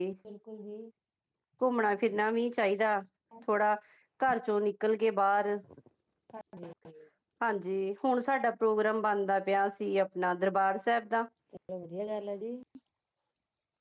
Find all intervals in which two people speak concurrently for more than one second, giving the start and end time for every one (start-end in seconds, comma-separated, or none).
none